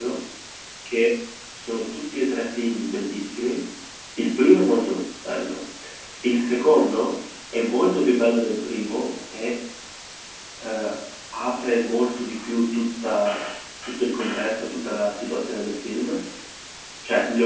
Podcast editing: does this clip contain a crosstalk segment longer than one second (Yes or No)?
No